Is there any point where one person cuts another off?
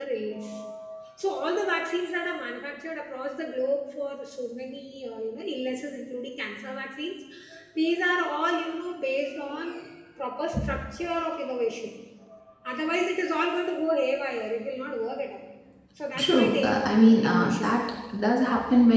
Yes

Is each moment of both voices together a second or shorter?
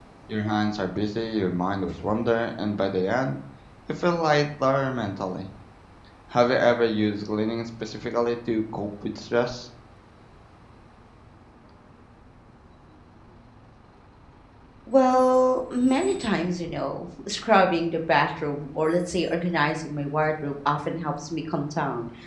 Yes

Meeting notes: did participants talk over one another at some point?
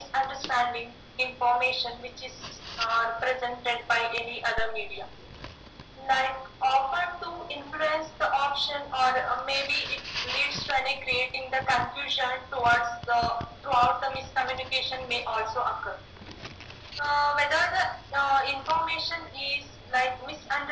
No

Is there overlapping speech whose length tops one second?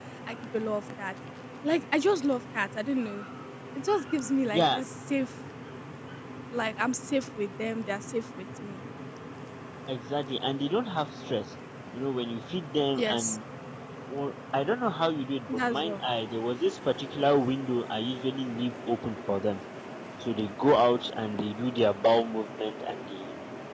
No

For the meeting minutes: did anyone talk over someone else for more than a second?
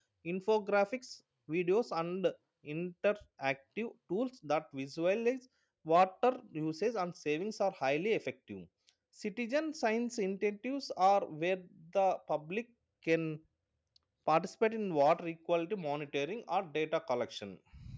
No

